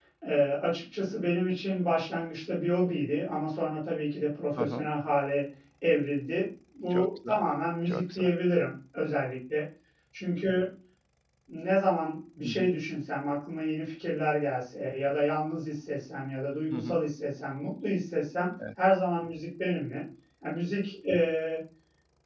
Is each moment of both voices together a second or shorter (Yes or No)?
Yes